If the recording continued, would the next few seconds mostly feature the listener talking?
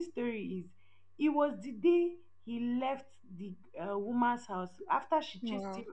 No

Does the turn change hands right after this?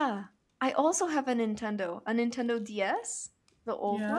Yes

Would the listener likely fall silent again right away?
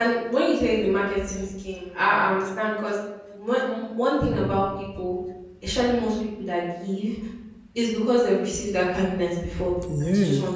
No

